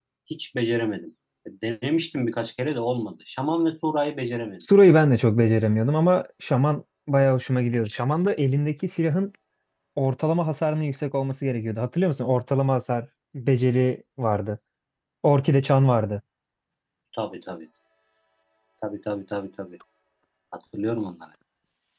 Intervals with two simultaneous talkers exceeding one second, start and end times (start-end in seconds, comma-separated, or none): none